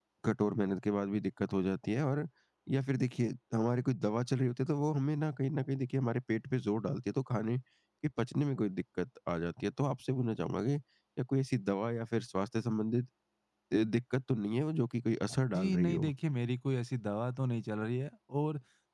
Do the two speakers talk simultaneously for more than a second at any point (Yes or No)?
No